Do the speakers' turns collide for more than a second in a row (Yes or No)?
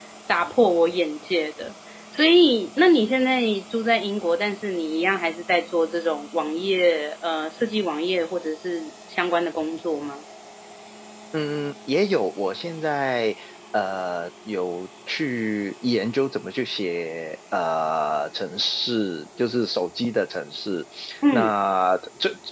No